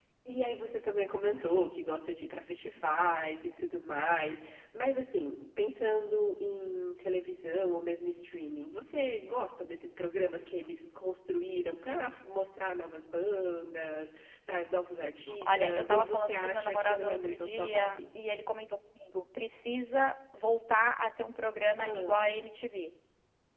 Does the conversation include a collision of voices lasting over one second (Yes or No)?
Yes